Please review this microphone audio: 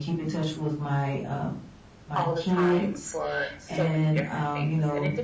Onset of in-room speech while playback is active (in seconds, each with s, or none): 2.1 s